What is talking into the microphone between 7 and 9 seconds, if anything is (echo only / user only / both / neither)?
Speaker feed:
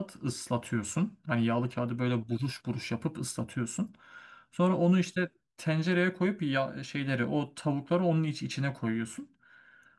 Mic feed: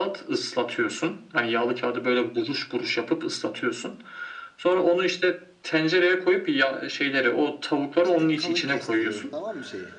both